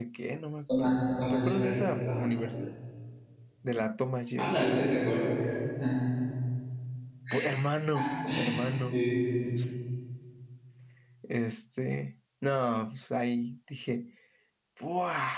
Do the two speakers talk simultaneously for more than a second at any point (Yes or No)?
Yes